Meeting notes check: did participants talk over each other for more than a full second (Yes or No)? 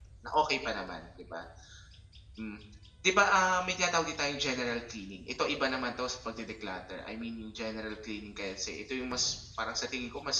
No